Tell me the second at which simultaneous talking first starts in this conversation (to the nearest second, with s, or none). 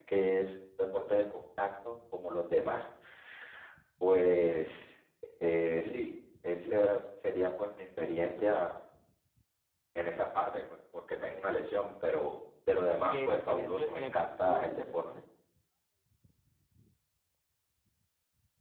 13 s